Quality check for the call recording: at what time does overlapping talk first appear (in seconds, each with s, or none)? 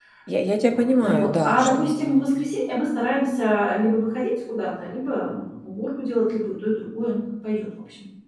0.7 s